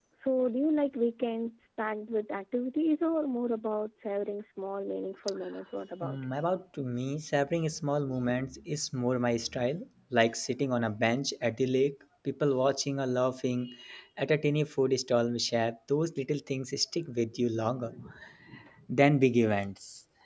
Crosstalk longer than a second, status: none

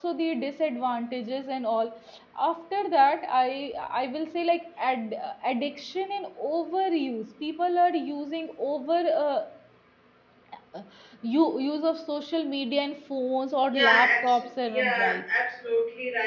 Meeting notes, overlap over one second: present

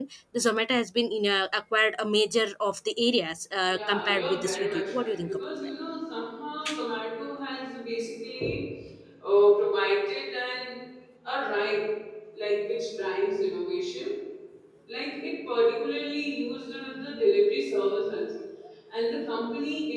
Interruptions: present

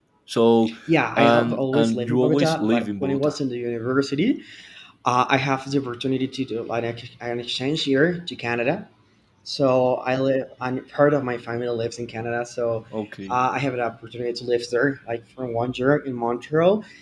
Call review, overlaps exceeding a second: present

